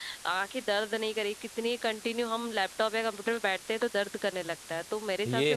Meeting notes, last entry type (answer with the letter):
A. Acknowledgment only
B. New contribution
B